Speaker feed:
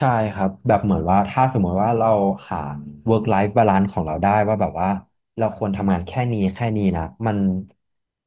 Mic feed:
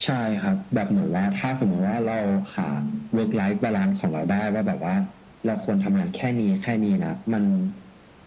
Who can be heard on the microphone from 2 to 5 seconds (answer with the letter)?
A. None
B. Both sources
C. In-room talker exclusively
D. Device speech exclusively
D